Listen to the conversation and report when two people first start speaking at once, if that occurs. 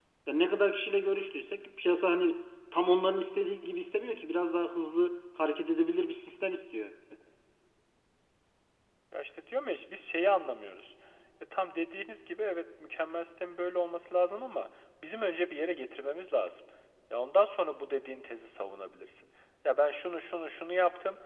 none

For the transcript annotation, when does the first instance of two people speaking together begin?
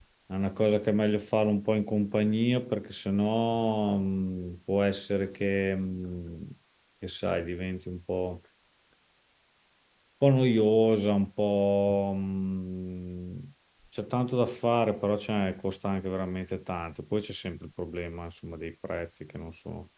none

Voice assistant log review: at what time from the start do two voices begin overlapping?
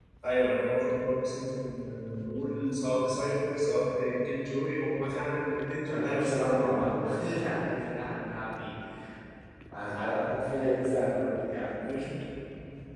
6 s

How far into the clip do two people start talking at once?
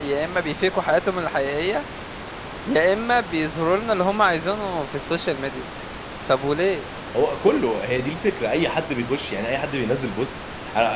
none

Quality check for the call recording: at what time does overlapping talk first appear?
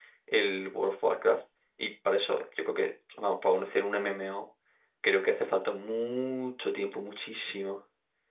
none

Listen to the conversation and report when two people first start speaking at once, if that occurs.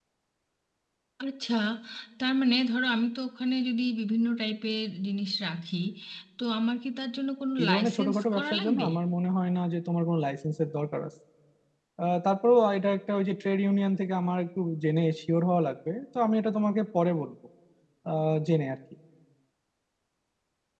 8 s

